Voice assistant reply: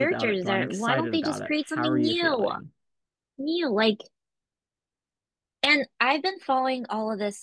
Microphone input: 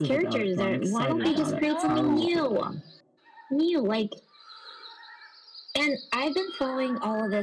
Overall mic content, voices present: both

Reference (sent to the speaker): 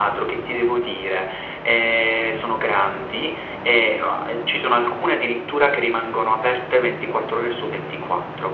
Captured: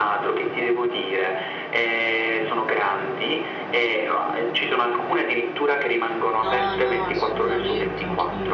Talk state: both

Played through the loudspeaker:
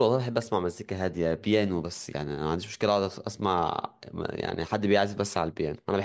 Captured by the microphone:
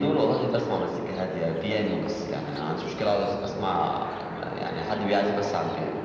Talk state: echo only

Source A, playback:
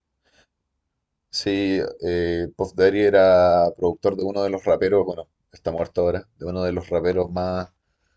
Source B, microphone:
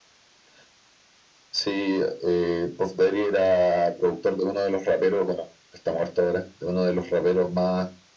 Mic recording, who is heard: echo only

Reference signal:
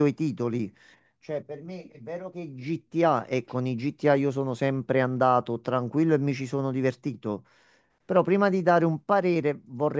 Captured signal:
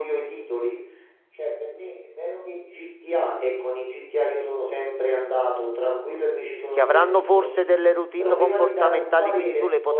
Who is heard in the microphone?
both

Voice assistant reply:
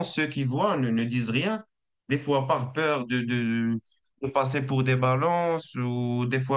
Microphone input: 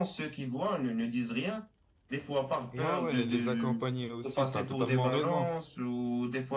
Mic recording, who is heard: both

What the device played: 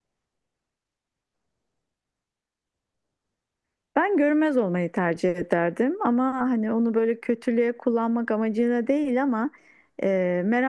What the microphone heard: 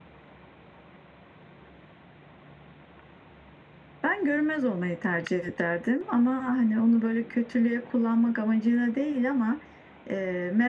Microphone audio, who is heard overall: echo only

